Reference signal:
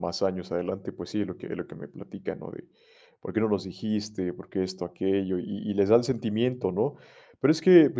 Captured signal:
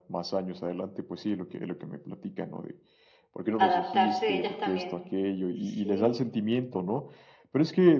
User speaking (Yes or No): Yes